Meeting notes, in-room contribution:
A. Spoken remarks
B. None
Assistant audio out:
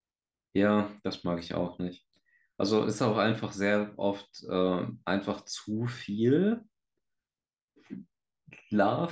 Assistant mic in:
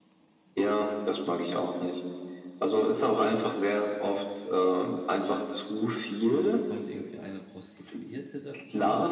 A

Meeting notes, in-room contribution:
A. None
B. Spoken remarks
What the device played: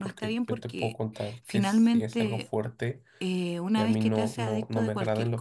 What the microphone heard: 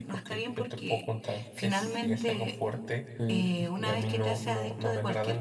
B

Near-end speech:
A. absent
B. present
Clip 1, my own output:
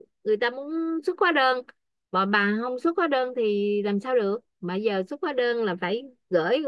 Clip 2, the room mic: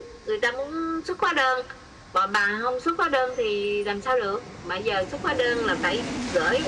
A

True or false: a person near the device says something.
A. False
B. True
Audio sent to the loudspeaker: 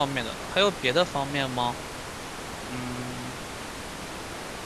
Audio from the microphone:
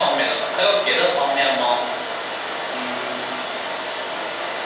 A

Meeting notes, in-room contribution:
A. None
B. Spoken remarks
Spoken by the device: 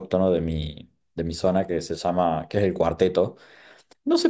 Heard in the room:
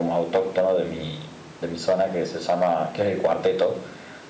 A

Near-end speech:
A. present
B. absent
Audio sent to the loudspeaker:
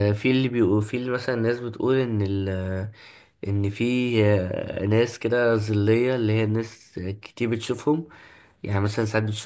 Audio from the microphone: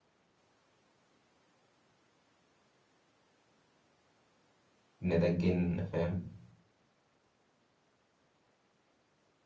A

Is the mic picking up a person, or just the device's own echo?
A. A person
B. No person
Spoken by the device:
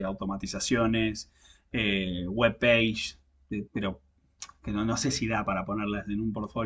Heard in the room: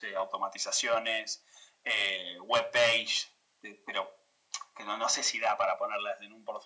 B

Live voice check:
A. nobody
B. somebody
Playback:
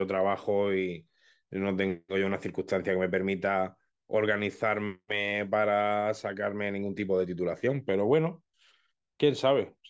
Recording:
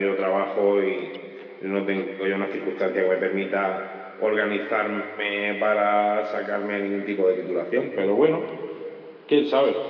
A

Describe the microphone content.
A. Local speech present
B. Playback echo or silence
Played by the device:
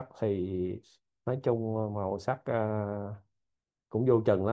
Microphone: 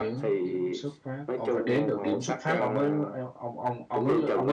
A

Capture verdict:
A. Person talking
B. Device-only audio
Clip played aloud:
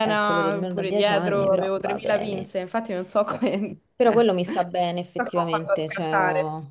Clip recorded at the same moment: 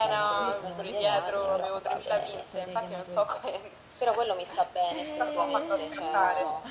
A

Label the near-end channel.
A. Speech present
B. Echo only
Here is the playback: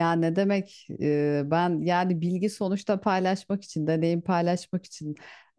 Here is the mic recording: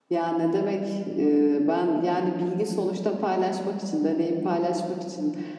B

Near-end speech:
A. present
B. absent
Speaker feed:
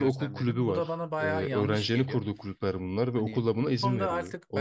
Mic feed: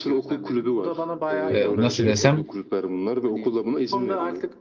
A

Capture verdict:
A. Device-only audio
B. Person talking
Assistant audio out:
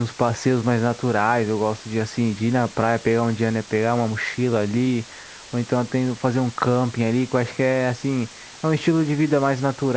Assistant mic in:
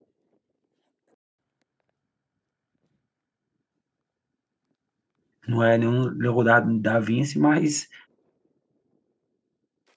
B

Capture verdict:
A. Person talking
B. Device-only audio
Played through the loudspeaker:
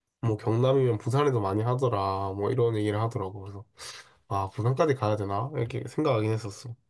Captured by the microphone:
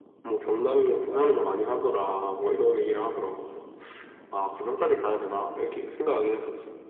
A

